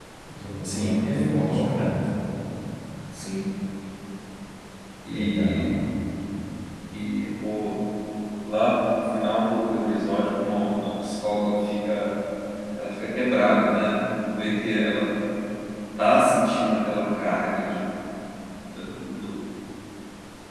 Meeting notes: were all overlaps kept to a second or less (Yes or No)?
No